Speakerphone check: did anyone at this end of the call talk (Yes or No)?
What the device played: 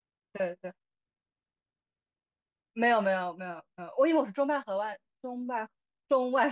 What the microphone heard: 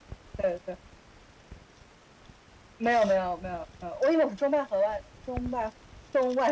No